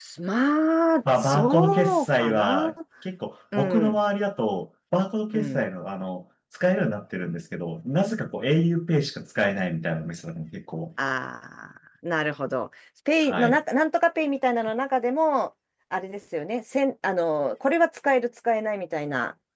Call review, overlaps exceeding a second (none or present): present